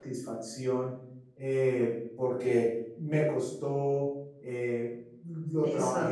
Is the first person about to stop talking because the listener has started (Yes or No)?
No